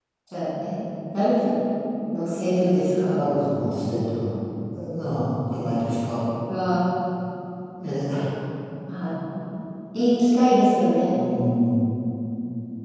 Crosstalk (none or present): none